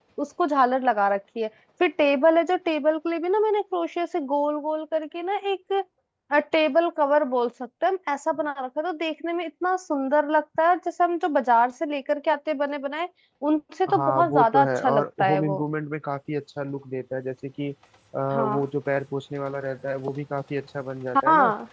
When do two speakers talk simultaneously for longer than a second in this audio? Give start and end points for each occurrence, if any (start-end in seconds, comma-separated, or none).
13.9-15.6